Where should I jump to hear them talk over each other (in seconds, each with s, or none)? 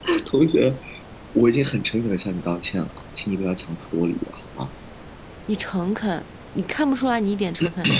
none